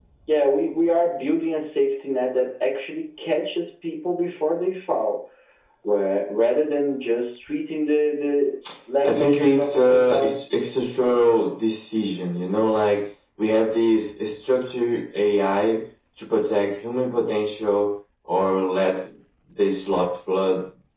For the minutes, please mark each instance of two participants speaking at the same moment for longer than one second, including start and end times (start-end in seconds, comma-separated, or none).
9.0-10.3